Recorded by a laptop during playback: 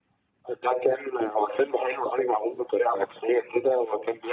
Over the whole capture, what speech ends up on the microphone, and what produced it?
echo only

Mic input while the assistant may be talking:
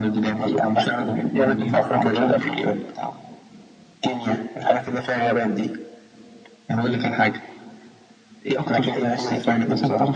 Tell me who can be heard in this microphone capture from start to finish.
echo only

